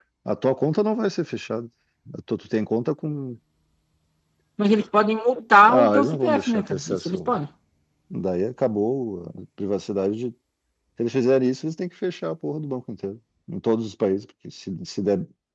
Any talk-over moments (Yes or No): Yes